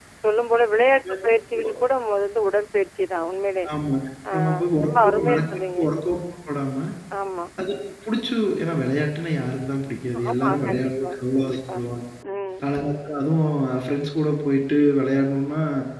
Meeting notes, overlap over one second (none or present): present